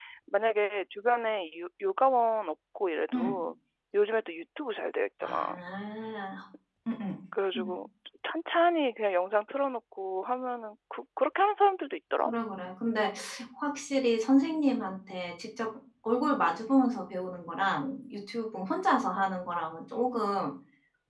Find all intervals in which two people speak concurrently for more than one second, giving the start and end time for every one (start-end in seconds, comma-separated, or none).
none